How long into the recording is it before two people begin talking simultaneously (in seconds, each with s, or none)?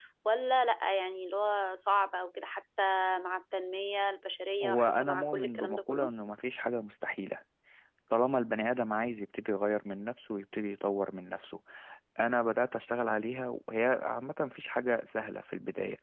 4.6 s